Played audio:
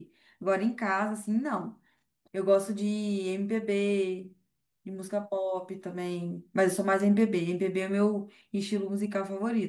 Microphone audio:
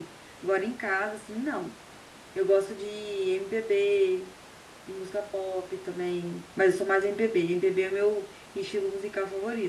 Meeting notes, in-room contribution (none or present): none